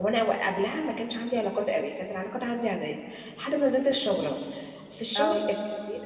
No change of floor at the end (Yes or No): Yes